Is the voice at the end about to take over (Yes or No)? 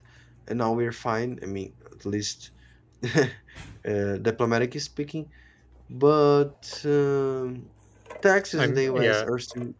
No